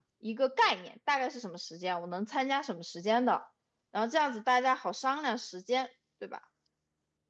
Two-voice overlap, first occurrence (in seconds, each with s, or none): none